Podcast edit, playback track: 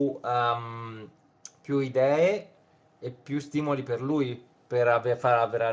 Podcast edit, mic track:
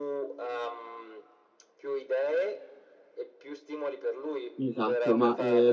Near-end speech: present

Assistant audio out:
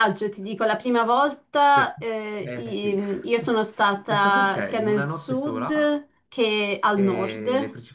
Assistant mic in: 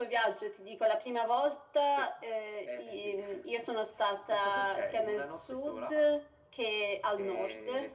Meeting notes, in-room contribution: none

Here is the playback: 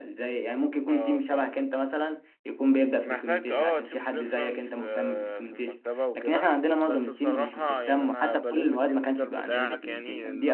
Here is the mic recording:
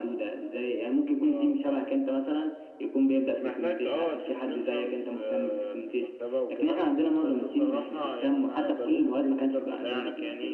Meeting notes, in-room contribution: none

